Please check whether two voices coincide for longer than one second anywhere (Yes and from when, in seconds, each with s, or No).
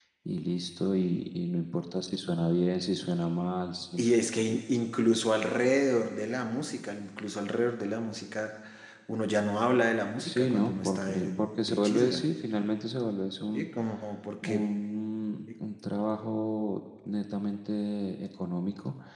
Yes, from 10.2 s